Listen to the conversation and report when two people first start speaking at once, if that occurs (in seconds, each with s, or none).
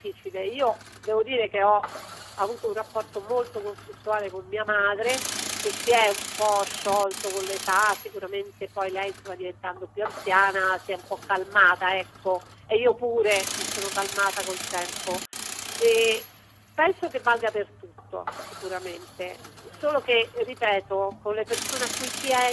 none